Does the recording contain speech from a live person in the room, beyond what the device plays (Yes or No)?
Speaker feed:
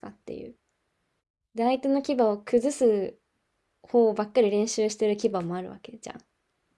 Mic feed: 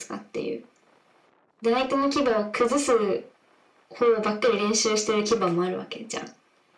No